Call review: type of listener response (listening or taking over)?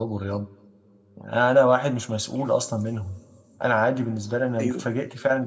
listening